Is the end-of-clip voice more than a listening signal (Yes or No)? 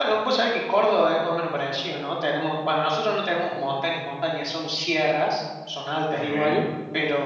No